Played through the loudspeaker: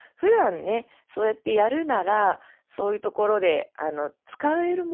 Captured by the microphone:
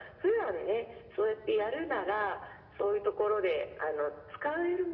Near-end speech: none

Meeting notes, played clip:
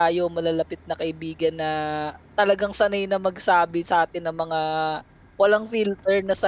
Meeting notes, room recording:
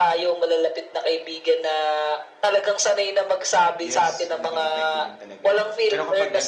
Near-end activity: present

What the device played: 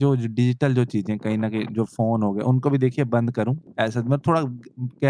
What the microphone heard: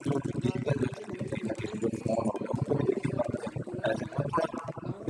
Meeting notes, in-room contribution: present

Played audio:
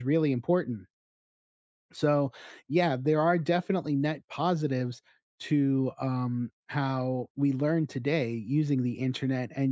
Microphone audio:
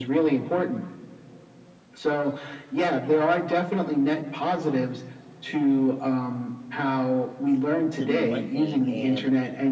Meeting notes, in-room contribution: present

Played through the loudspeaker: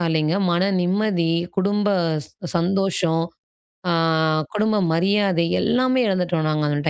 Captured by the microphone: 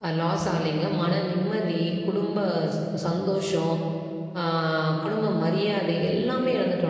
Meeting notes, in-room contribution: none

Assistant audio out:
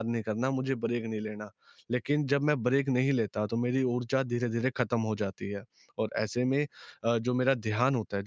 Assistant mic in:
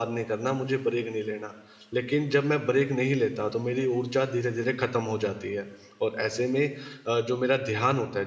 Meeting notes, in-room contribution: none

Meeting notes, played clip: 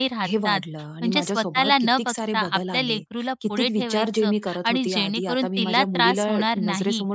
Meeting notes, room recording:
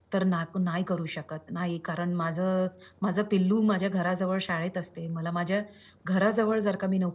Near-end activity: present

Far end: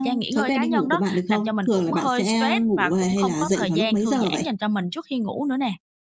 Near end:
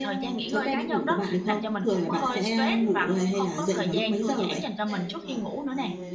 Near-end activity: present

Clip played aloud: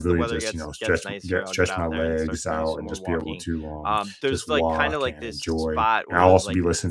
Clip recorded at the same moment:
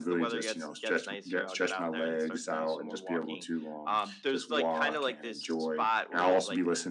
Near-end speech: none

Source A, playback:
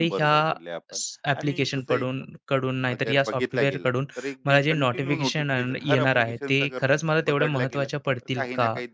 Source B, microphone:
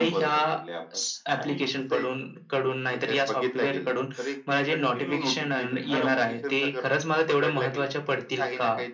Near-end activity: none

